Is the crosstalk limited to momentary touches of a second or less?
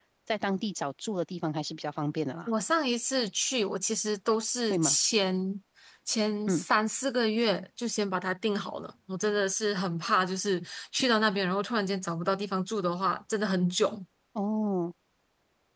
Yes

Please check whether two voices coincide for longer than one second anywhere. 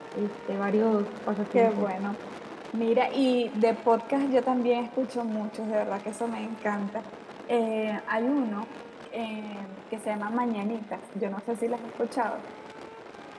No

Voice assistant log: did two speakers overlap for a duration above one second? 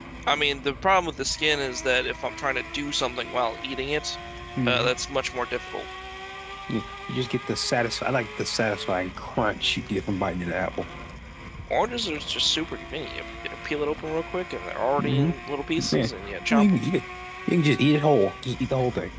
No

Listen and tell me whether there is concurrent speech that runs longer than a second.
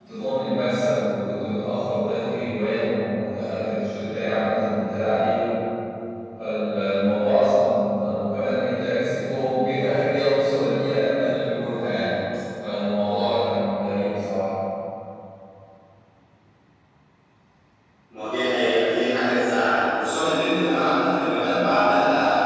No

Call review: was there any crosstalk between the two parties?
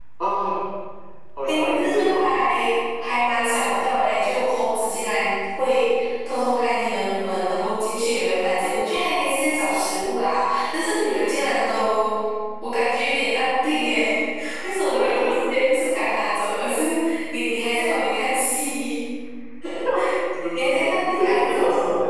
Yes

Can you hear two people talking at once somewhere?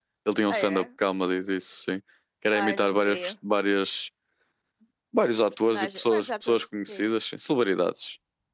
Yes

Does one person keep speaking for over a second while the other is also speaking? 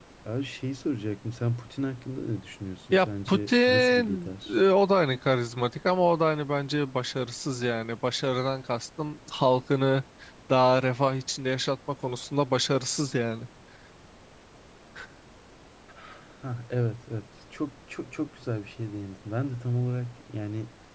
Yes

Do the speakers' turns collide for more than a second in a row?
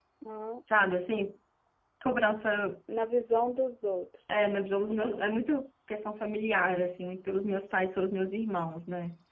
No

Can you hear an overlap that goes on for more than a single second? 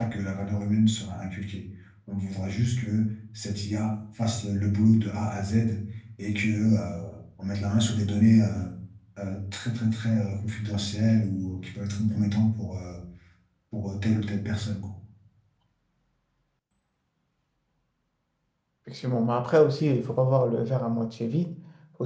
No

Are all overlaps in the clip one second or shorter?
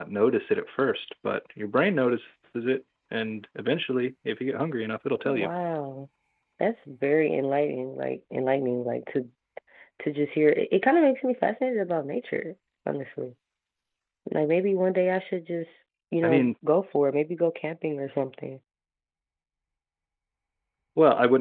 Yes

